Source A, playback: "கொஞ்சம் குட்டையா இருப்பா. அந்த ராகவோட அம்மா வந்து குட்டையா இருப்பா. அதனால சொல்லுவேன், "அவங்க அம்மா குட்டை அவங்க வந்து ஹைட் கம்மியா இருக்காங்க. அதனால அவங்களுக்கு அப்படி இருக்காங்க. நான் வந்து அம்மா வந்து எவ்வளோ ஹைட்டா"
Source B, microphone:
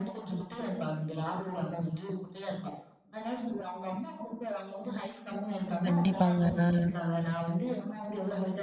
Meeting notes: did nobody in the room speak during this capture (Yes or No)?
No